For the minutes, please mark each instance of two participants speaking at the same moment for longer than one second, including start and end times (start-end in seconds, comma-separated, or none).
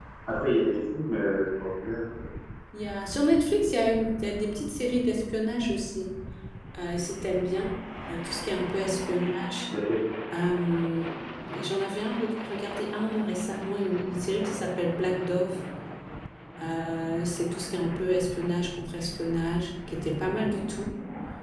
none